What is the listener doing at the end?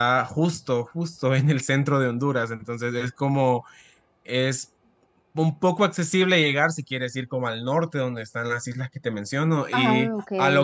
listening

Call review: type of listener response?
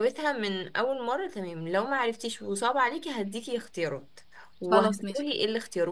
listening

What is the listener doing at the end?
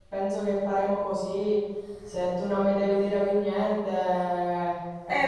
taking over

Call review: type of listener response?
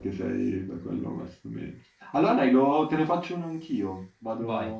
listening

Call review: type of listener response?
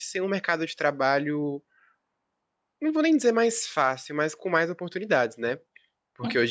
listening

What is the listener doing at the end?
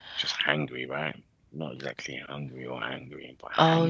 taking over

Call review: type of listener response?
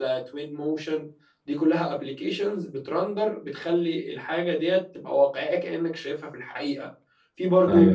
listening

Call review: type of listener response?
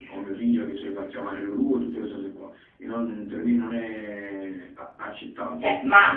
taking over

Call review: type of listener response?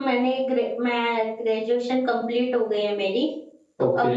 listening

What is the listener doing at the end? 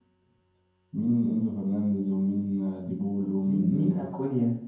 taking over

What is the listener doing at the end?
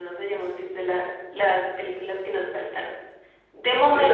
listening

